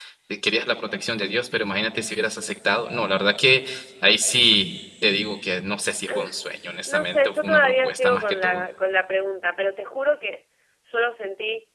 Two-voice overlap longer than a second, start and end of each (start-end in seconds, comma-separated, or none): 6.9-8.6